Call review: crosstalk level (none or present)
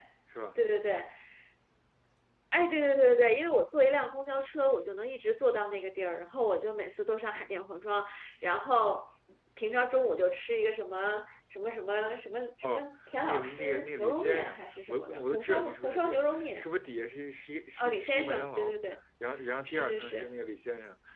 present